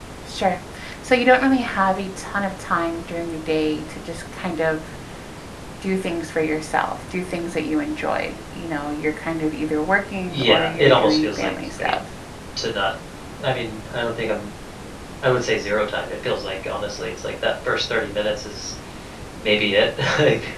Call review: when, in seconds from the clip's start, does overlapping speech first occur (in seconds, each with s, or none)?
10.2 s